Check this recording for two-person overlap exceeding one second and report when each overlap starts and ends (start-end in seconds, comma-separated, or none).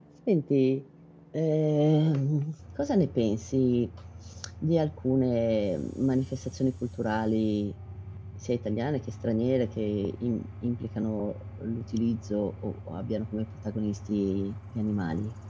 none